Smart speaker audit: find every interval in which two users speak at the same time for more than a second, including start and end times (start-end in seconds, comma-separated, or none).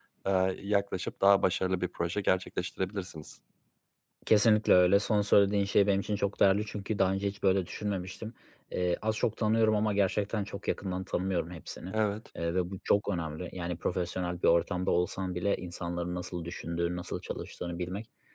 none